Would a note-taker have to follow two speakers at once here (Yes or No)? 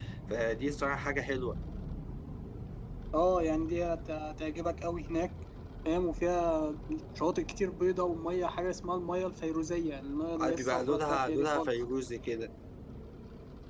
Yes